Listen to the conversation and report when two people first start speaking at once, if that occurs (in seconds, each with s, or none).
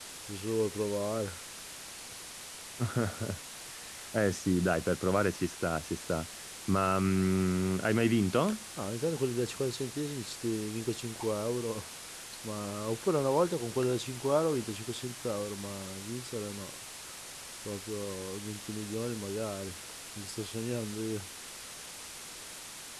none